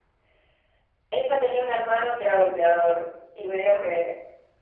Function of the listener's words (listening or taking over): listening